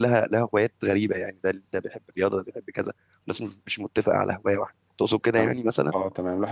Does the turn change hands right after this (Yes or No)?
Yes